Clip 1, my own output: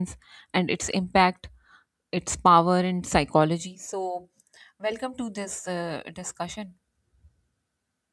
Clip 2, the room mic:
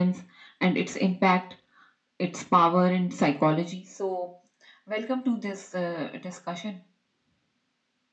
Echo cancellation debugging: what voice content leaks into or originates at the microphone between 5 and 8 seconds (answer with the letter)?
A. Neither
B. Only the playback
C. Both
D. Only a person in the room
B